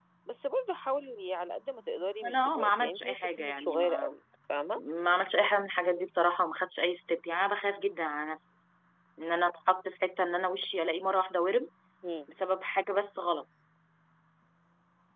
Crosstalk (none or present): present